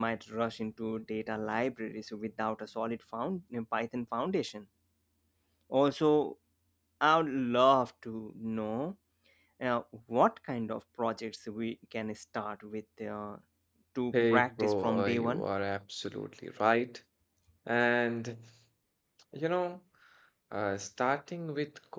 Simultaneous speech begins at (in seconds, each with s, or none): 14.1 s